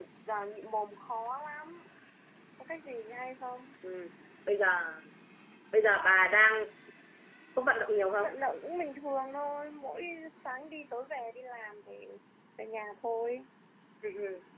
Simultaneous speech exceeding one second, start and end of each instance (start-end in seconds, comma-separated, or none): none